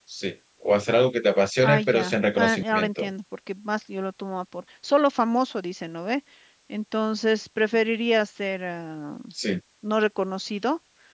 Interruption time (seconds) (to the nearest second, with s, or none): 2 s